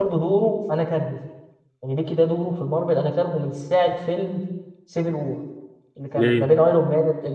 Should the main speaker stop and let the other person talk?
No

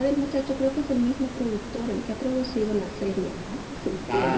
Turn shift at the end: Yes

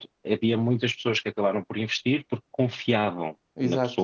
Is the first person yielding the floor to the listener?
No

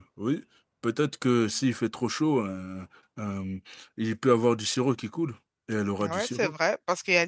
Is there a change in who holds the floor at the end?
Yes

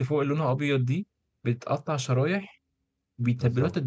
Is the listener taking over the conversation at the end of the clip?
No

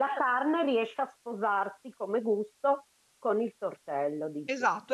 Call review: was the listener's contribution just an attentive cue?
No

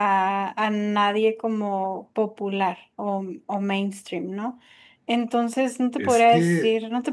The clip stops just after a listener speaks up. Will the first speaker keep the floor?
Yes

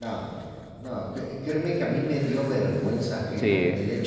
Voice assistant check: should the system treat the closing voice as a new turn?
No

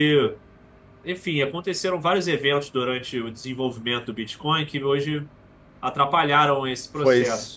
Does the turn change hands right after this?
Yes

